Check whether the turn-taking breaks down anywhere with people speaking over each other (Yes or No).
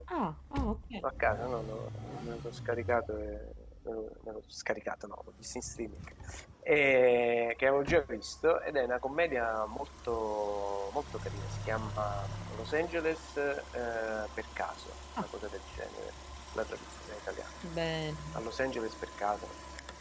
No